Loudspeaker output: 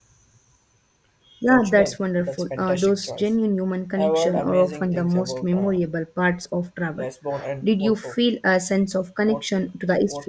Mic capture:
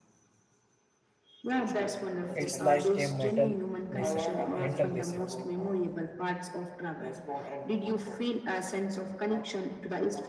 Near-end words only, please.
It's like a mental reset. Mental reset.

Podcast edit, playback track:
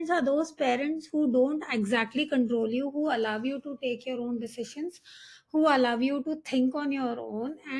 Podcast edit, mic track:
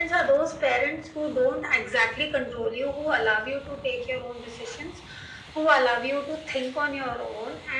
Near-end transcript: none

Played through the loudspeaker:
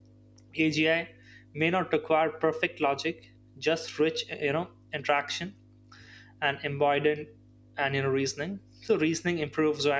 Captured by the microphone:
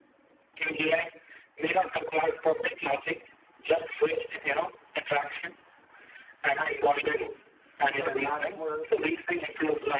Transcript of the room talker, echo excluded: acts as a truth filter bad models

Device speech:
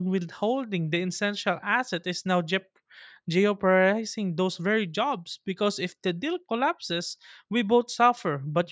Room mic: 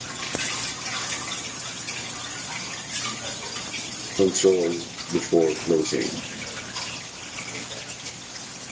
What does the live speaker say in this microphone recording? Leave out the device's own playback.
control before closing.

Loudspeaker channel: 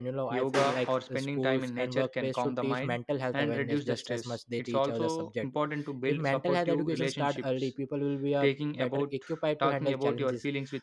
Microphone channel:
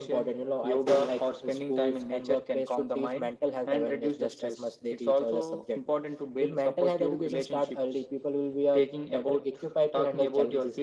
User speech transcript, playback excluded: none

